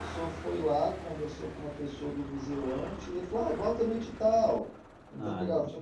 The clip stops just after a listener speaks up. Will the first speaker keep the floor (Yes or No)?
Yes